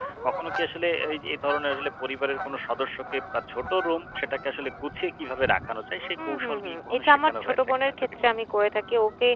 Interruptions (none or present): present